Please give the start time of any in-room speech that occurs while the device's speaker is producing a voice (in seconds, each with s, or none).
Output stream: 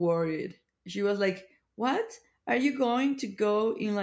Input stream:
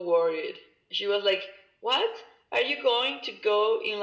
none